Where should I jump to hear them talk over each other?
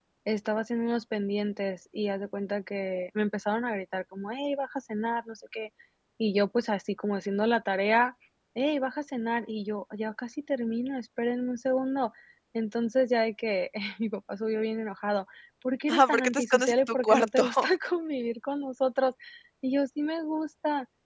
15.9 s

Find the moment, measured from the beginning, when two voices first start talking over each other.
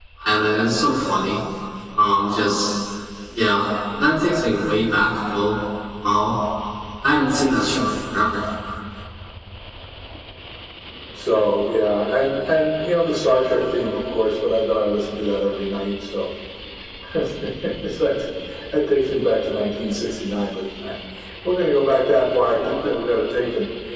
none

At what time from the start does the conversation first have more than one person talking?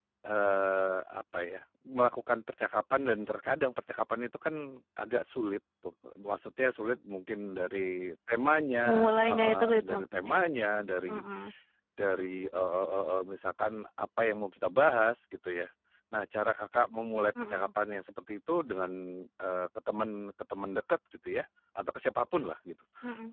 8.9 s

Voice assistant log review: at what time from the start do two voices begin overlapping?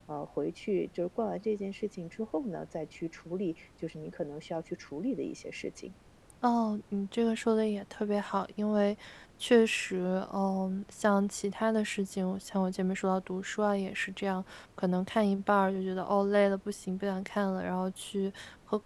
none

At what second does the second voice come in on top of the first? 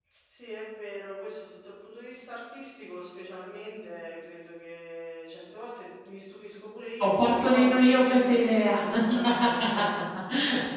7.0 s

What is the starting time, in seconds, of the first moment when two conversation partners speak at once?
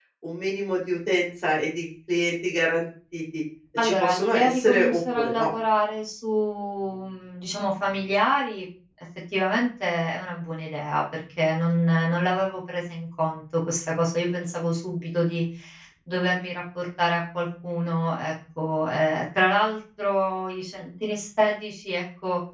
3.8 s

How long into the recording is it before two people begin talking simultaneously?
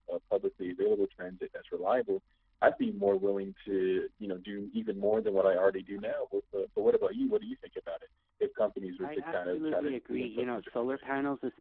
9.0 s

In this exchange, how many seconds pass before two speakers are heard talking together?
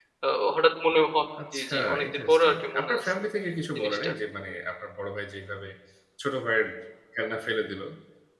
1.5 s

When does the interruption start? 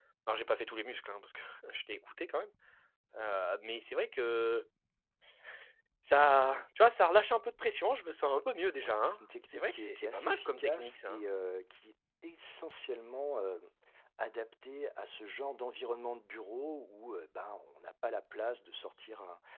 8.8 s

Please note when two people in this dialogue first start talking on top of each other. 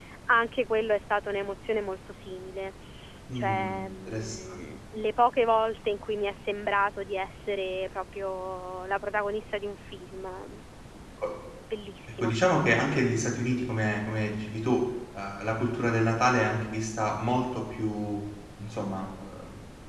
3.4 s

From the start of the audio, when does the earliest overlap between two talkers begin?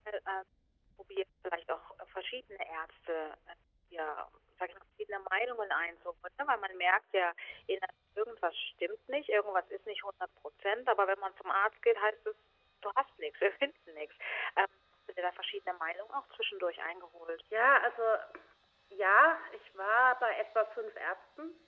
none

